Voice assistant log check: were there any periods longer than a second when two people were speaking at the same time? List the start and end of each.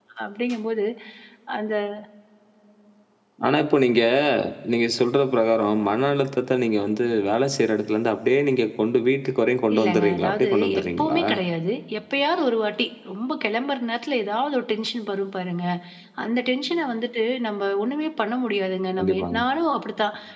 9.8-11.2

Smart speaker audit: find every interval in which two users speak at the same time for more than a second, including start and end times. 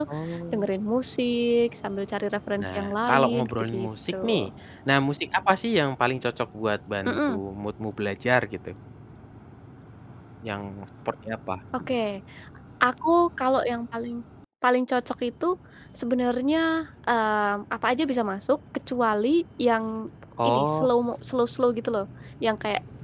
2.6-4.4

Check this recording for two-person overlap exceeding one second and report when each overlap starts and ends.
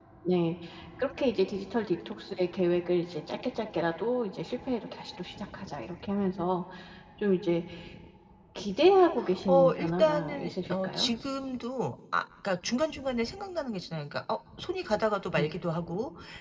9.5-11.1

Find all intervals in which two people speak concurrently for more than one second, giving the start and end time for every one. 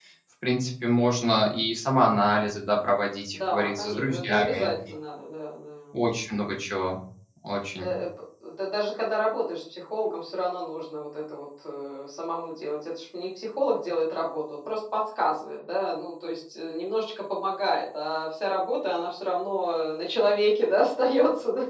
3.3-4.7

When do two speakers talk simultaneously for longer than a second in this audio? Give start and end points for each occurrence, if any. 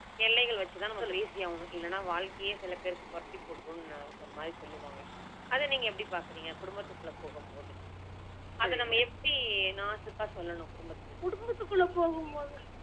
none

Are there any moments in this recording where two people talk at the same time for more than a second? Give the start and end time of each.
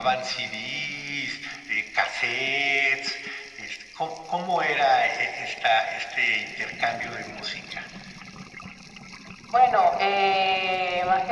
none

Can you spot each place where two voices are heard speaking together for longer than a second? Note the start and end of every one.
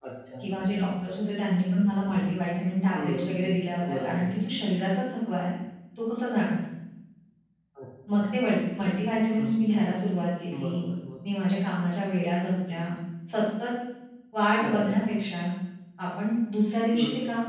none

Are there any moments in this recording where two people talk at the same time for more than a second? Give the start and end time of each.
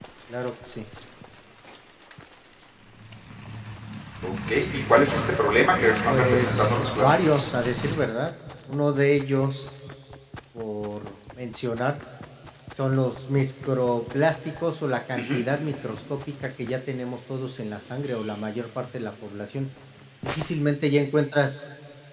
6.0-7.5

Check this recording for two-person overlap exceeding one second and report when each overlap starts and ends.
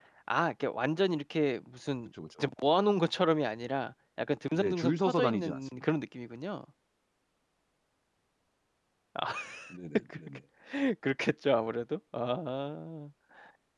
4.5-5.8

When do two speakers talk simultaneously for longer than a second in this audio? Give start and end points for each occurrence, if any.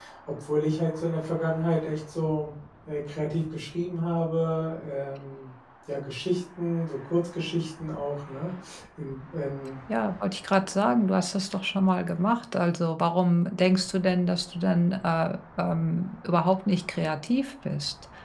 none

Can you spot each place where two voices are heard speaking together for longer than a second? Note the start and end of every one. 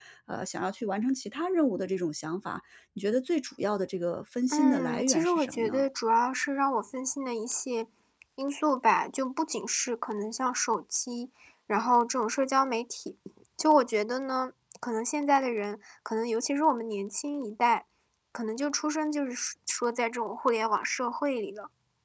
4.5-5.8

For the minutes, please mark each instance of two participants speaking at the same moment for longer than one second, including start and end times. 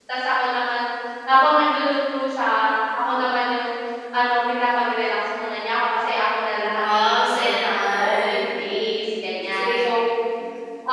6.8-8.4

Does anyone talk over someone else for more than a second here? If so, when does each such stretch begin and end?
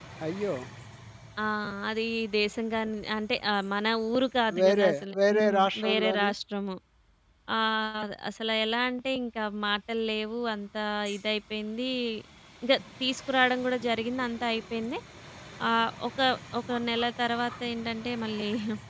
4.6-6.3

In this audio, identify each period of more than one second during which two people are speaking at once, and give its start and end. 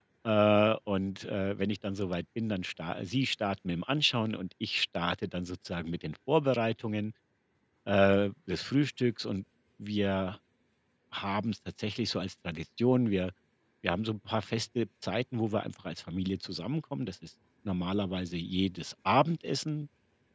none

